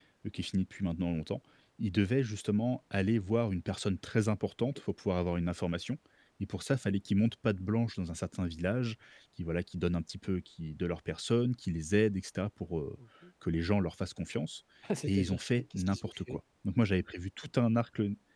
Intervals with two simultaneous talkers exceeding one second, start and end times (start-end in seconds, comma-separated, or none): 15.2-16.4